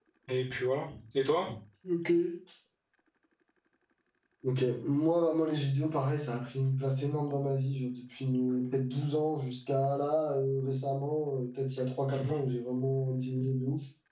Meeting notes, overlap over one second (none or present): none